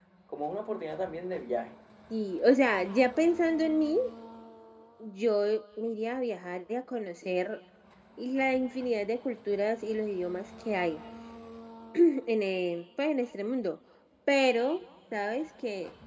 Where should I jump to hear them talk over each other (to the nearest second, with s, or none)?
none